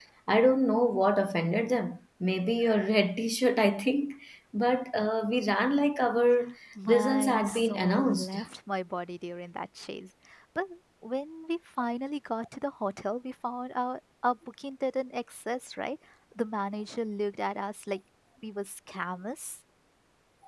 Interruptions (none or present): present